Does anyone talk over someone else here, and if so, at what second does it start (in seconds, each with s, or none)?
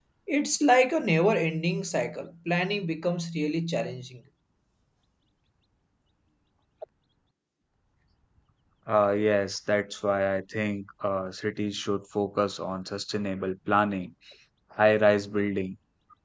none